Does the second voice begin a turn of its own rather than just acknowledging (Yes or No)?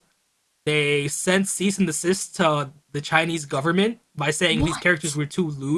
No